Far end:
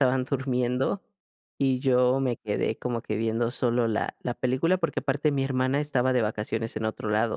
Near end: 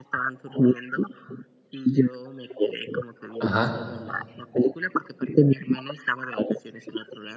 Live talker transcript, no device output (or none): Ajá.